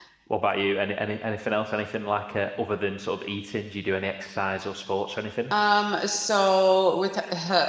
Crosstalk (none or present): none